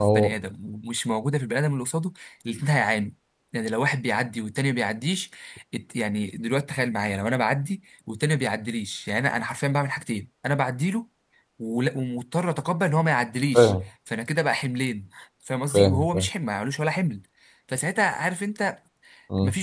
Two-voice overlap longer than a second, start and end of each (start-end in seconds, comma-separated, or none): none